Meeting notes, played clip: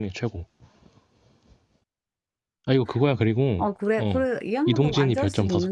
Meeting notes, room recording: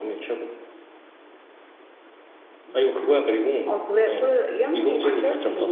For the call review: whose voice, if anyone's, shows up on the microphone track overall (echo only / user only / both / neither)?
both